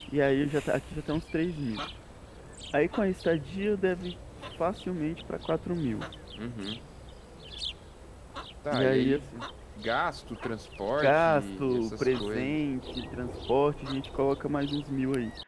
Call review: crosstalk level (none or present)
present